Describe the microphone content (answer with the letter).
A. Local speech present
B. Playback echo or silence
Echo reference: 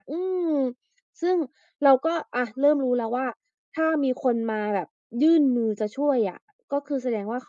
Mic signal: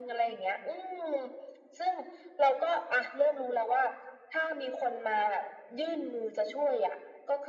B